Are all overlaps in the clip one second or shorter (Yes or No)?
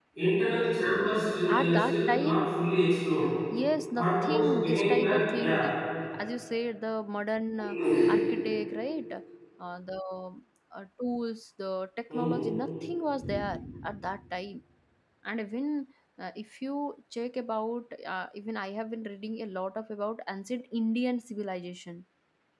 No